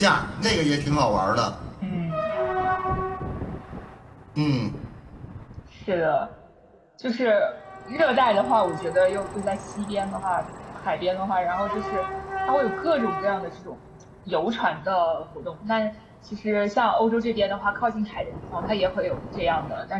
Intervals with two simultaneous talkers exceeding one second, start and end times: none

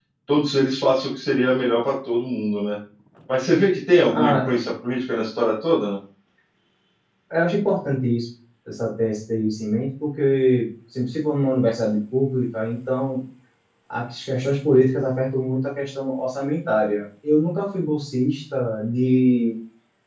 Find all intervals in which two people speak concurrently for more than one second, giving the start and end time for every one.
none

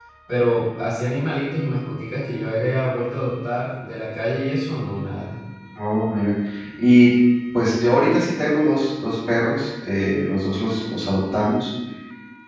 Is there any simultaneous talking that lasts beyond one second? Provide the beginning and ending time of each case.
none

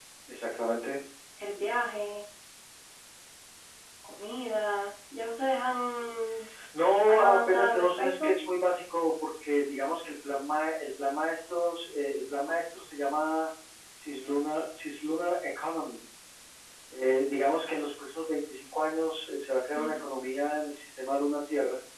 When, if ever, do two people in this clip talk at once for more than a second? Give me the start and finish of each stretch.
7.1-8.3

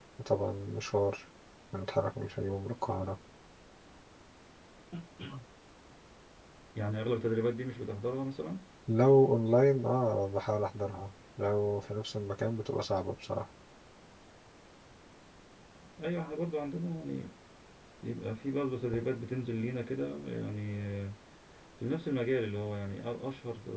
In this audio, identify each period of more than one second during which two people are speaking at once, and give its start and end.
none

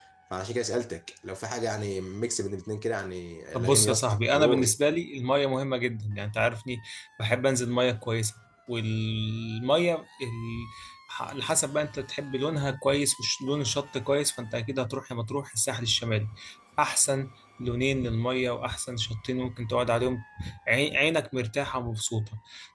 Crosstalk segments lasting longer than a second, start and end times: 3.5-4.8

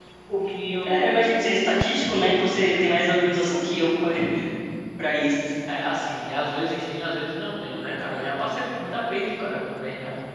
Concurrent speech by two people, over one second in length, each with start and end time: none

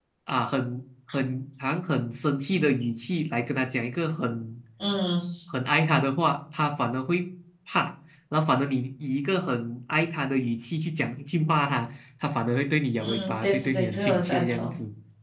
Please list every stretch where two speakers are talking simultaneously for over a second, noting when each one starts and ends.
13.0-14.7

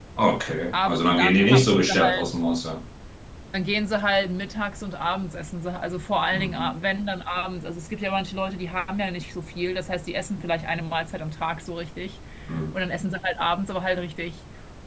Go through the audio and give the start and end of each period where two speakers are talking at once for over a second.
0.7-2.2

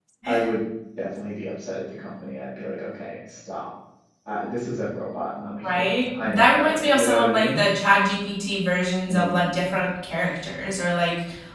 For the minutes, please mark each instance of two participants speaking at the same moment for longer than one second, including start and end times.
5.6-7.6

